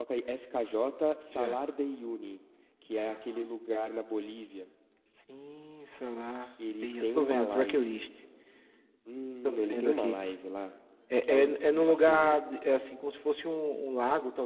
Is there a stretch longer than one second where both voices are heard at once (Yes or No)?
Yes